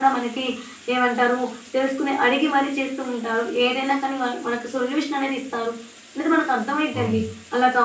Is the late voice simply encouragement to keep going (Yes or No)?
Yes